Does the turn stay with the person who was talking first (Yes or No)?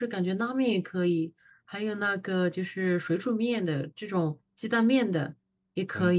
No